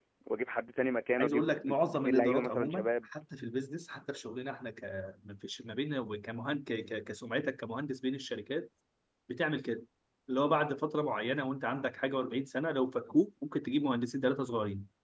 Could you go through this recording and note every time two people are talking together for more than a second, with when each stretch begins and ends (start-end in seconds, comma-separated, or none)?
1.2-2.9